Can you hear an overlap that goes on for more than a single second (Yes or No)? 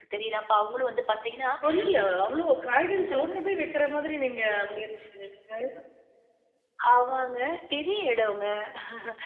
No